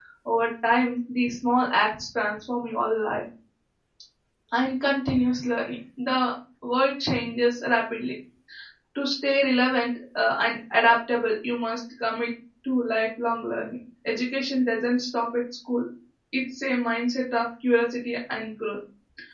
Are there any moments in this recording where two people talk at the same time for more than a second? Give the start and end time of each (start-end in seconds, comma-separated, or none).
none